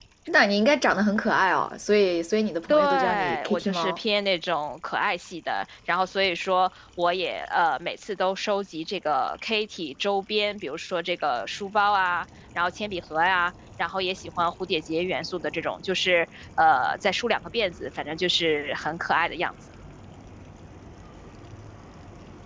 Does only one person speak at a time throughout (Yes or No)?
No